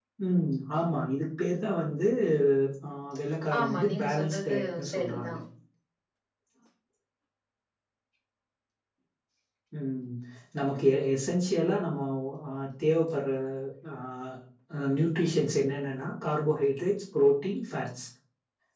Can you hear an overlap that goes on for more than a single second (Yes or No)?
Yes